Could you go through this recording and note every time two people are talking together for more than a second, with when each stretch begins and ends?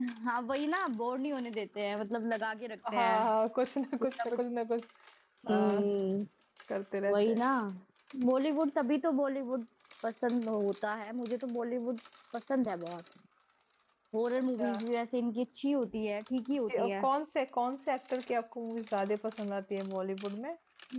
none

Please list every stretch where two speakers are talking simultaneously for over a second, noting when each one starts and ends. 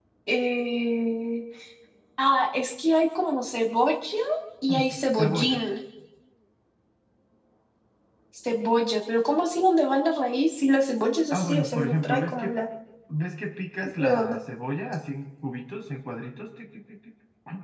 11.3-12.5

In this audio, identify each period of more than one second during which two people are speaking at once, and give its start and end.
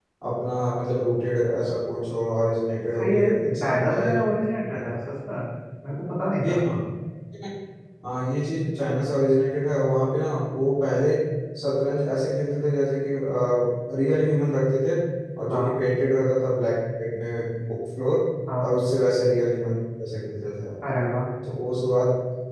3.0-4.2

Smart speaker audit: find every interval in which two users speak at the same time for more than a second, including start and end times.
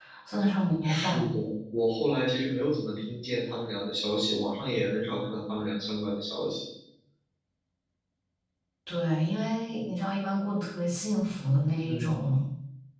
none

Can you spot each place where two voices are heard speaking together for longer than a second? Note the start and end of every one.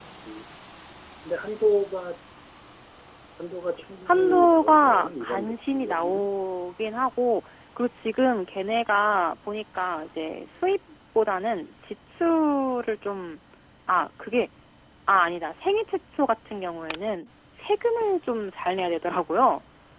4.1-6.3

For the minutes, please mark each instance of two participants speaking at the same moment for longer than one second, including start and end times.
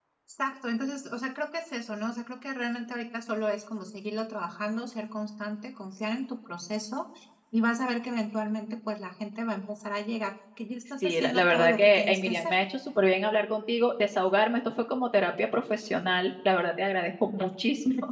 11.0-12.5

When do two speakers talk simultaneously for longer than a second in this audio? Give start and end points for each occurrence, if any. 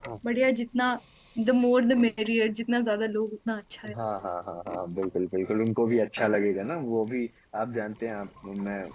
none

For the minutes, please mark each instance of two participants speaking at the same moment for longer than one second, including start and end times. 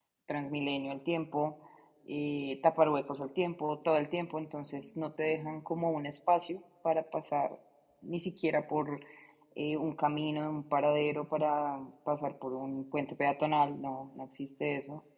none

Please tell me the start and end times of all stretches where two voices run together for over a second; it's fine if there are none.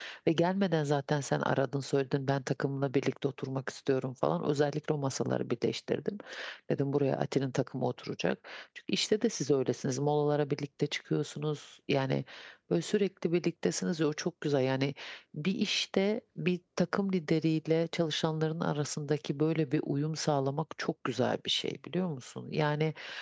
none

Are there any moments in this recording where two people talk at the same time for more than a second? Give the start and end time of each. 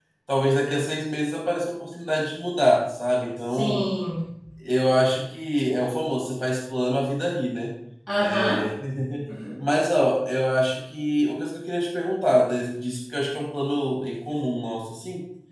none

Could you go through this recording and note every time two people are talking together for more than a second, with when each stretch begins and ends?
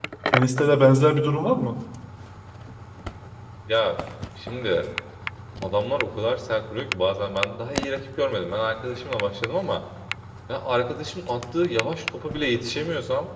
none

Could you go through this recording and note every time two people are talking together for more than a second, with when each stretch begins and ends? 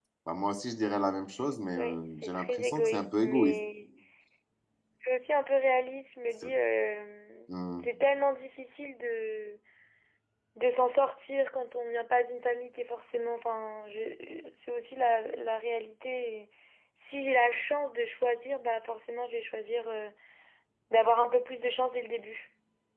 1.8-3.5

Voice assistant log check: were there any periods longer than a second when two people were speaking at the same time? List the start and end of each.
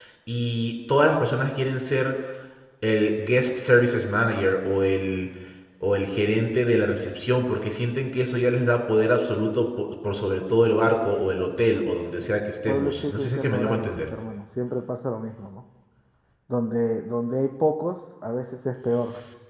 12.7-14.0

